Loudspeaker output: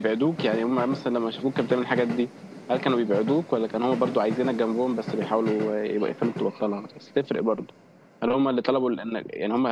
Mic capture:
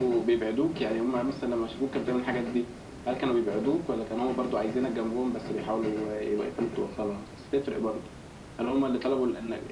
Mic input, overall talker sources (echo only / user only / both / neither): echo only